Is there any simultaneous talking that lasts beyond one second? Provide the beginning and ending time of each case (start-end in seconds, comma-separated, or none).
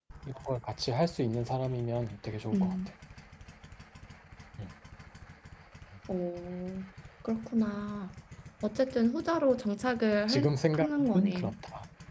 10.3-11.5